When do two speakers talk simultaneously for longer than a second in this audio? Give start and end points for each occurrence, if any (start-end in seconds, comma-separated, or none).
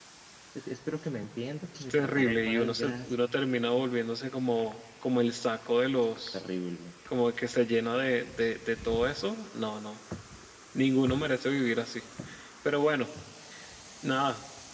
1.9-3.1